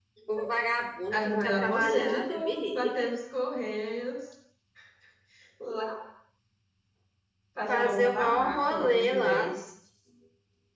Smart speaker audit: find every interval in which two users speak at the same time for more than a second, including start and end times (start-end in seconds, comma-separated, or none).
1.1-3.1, 7.7-9.5